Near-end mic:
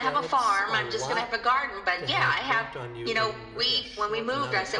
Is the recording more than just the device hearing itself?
Yes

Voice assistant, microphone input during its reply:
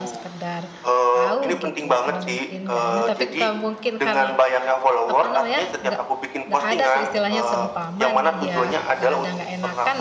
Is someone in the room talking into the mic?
Yes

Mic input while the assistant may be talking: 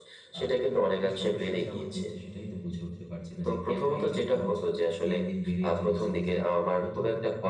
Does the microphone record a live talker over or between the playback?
Yes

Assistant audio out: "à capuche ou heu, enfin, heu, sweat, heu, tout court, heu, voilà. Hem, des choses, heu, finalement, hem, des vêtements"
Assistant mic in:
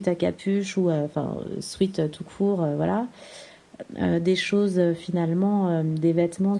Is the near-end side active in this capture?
No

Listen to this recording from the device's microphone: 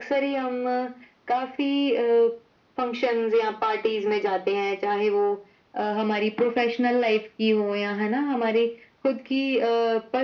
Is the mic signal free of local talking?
Yes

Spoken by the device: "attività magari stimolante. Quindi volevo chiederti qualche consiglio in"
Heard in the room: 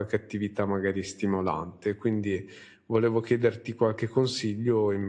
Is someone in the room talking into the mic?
No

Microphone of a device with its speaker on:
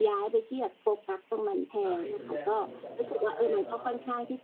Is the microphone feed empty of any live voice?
No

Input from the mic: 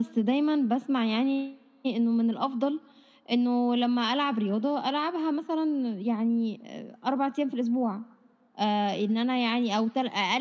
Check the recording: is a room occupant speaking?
No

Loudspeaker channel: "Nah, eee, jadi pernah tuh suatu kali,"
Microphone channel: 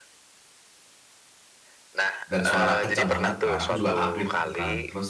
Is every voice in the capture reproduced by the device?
No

